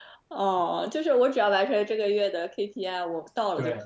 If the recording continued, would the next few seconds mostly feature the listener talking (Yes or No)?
Yes